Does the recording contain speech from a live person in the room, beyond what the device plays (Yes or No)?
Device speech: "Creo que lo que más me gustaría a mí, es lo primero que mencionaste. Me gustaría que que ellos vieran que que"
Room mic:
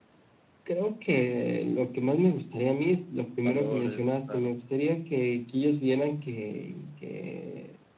Yes